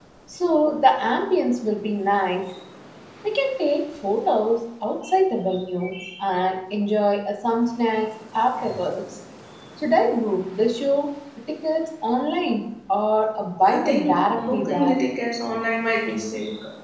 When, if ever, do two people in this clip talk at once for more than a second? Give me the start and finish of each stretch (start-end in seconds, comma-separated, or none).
13.7-15.0